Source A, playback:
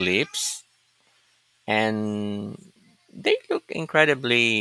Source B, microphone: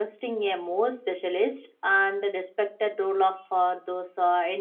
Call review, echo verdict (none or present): none